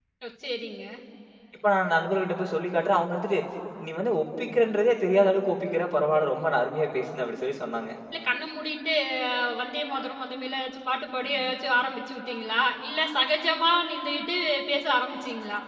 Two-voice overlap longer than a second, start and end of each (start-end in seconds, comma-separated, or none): none